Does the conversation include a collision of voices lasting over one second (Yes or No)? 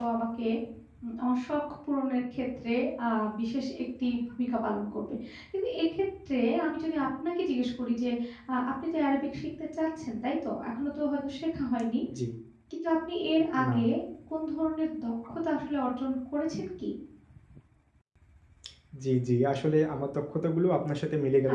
No